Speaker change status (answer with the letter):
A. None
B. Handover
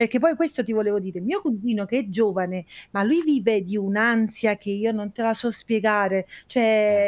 A